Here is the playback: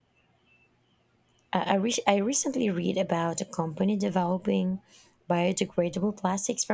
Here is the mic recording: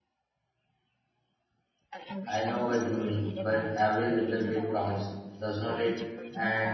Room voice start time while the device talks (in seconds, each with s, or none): 2.3 s